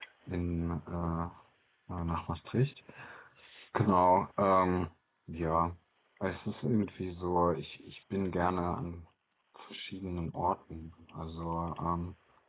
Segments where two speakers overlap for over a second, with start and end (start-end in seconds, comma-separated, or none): none